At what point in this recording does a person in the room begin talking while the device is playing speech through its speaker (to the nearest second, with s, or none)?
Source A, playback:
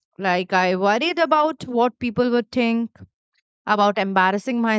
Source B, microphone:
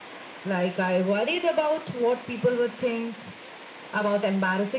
none